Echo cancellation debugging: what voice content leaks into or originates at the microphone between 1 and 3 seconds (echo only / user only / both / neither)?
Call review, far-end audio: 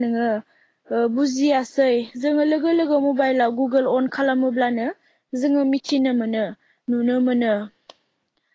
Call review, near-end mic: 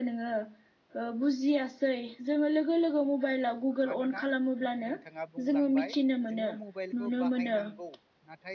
echo only